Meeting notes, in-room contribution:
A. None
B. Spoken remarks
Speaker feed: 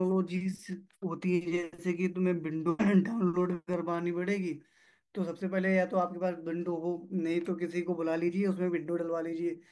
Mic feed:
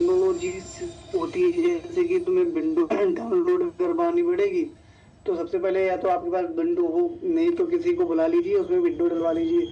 A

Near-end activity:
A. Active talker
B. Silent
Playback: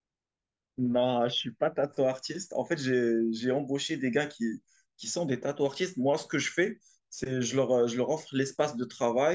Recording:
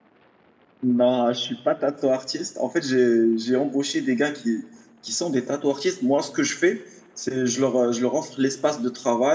B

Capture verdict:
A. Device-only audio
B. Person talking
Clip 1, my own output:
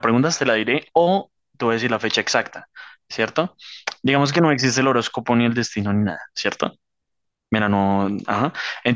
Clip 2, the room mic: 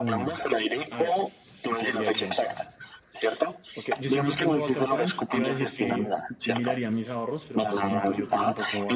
B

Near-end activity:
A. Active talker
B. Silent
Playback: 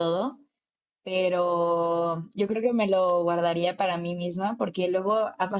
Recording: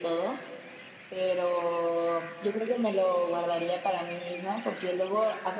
B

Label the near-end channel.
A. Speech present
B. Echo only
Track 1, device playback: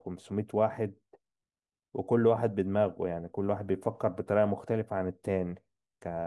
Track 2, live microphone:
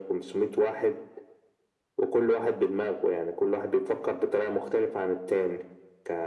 B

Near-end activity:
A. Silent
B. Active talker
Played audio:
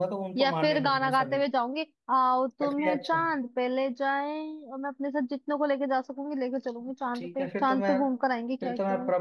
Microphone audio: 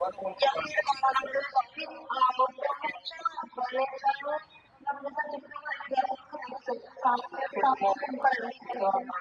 A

